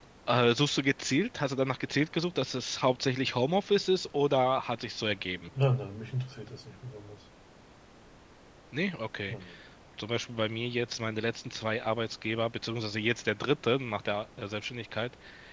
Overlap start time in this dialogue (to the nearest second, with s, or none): none